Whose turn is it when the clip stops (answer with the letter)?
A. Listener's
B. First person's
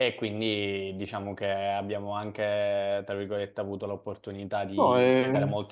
B